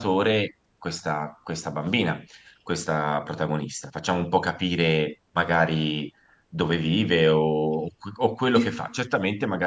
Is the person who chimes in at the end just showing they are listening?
Yes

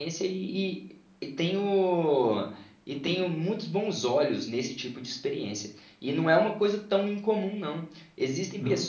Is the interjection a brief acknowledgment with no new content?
Yes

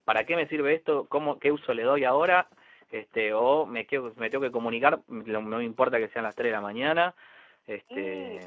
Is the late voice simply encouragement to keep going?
No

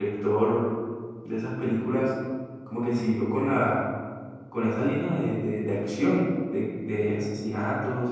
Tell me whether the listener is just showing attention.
Yes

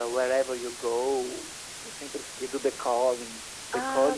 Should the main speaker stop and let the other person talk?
No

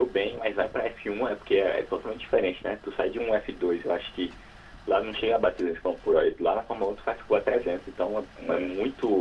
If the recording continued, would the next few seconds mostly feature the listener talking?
No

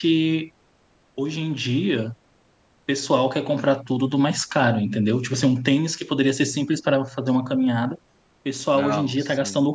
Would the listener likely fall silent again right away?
Yes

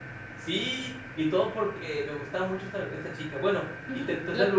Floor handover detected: Yes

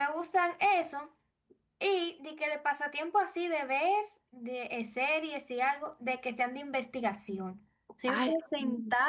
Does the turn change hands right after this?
No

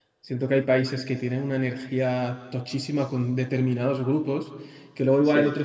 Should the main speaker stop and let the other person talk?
No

